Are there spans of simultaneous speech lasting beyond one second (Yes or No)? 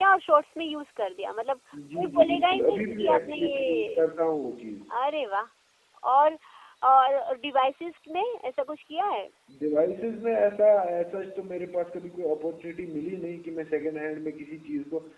Yes